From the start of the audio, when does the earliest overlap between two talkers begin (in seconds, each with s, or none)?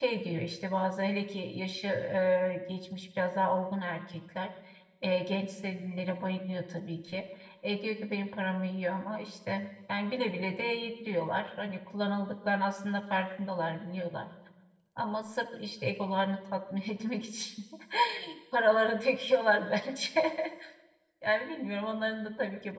none